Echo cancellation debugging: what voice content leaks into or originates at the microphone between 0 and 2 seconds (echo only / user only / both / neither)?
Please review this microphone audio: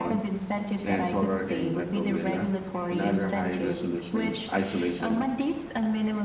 both